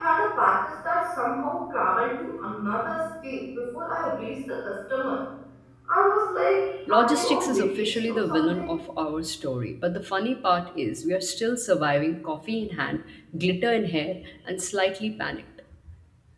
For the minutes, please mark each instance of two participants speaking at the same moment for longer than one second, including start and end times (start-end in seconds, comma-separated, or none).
6.9-8.7